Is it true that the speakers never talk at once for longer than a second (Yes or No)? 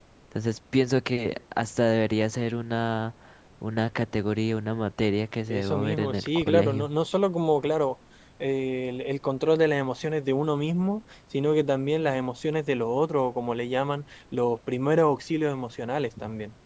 No